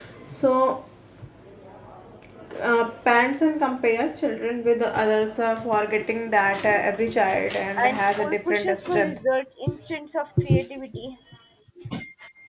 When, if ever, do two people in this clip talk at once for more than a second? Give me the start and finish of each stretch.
7.8-9.2

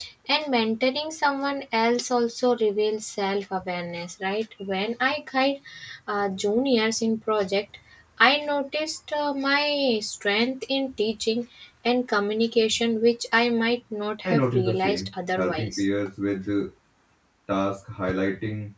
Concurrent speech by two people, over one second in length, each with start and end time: 14.2-15.8

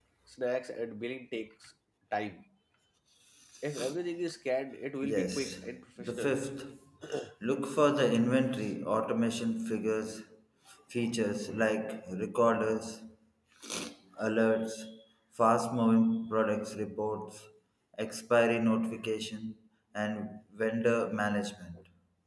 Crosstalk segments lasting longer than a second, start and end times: 5.0-6.3

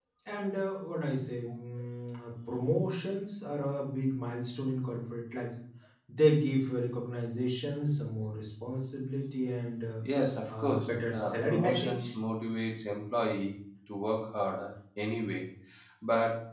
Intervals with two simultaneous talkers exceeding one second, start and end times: 10.5-12.1

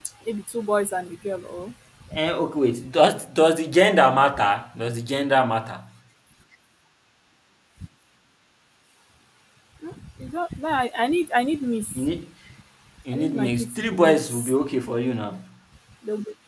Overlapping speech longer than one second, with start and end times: 13.1-14.5

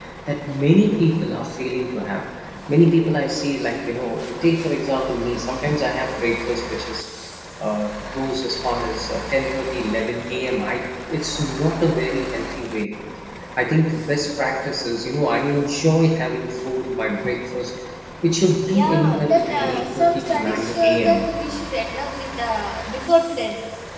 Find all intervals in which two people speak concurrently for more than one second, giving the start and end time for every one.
18.7-21.3

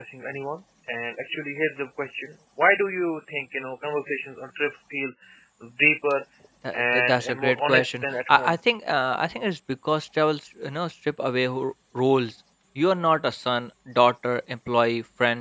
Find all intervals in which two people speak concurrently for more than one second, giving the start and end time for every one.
6.7-8.5

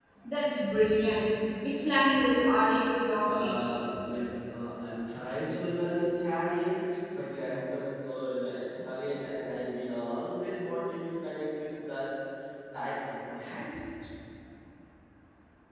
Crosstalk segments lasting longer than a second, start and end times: none

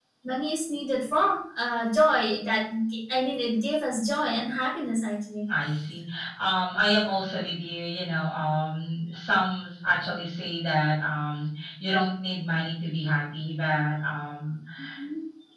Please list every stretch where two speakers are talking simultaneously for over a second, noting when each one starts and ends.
none

